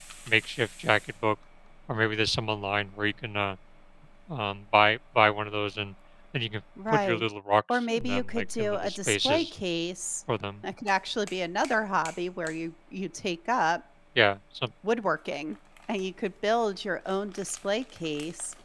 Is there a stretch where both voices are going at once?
Yes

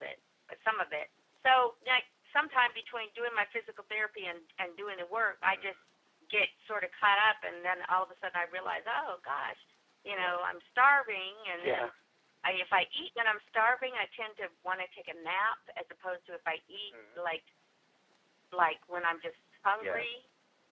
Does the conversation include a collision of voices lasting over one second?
No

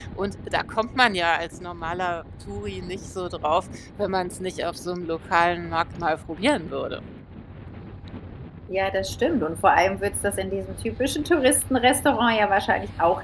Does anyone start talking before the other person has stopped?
No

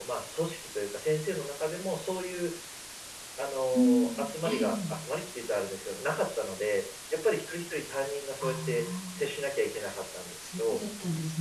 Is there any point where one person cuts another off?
Yes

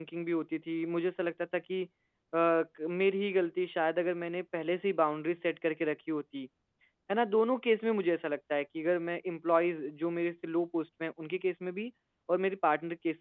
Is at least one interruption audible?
No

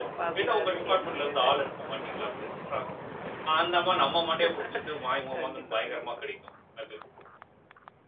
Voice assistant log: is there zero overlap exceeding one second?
No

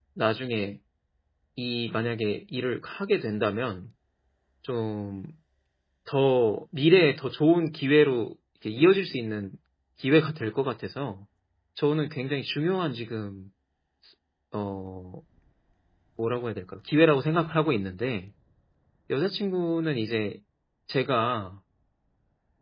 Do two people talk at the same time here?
No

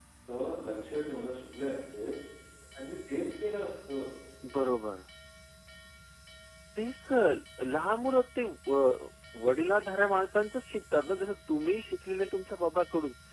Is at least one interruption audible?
No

